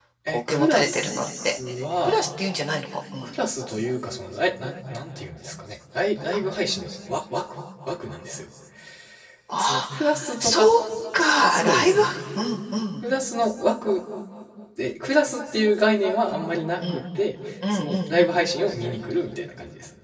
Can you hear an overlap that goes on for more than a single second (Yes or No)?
Yes